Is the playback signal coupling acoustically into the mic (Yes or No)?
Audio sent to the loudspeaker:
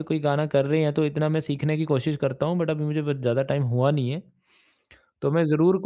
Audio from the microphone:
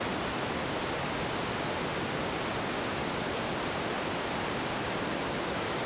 No